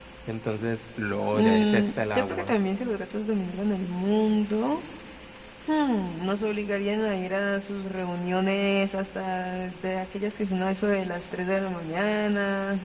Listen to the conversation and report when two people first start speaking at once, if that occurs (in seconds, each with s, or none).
1.3 s